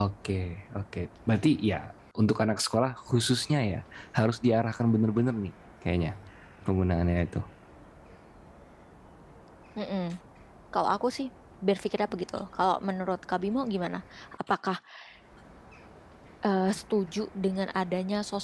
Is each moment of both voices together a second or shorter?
Yes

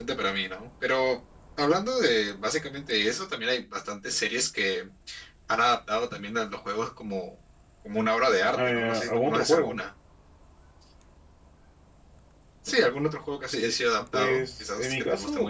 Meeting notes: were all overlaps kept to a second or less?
No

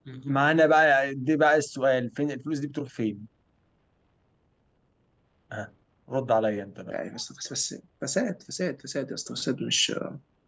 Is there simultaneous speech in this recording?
No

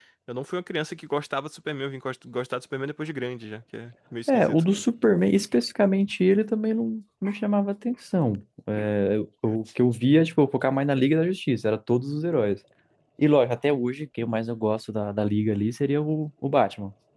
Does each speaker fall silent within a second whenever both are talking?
Yes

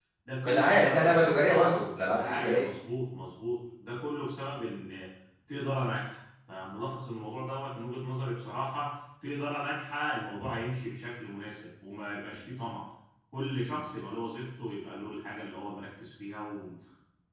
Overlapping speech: Yes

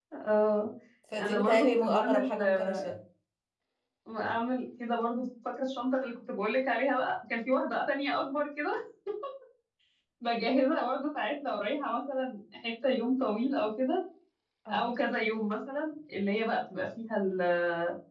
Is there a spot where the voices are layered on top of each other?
Yes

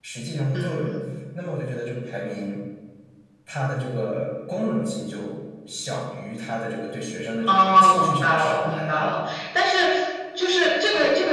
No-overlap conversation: No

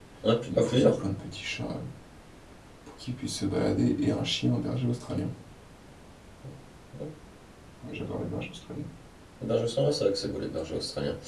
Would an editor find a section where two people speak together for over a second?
No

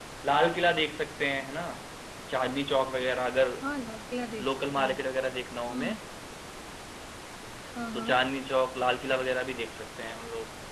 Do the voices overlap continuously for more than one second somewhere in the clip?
No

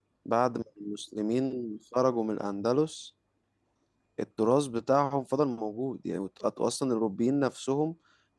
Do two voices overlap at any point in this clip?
No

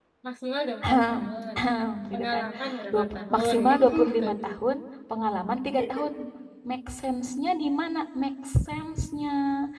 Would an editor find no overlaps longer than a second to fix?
No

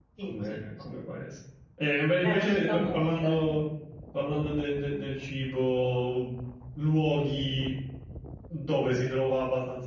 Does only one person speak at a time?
No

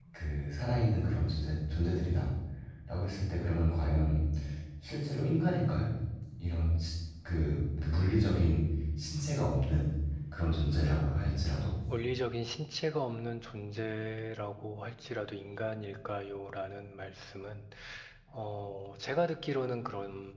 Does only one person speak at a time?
Yes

